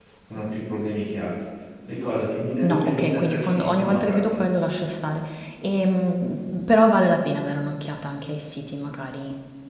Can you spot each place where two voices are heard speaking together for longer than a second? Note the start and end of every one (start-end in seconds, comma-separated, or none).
2.6-4.4